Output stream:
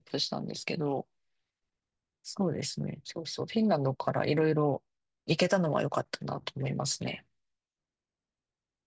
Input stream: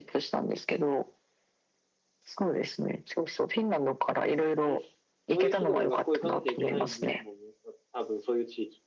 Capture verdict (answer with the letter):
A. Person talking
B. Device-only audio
A